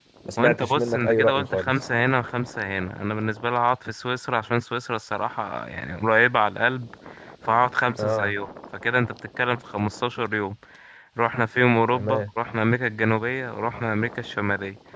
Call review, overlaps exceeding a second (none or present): present